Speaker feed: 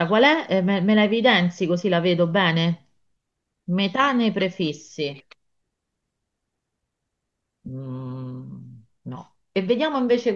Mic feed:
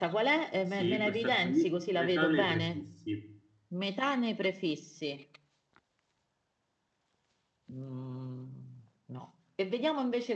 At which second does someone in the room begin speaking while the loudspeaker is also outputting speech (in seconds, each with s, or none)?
0.6 s